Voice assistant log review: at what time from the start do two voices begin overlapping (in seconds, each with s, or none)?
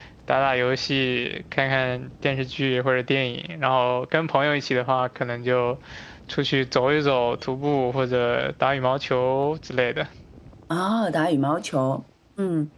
none